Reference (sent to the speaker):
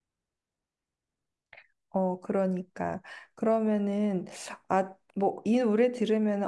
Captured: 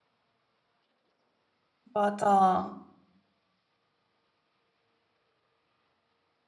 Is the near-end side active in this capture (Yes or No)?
Yes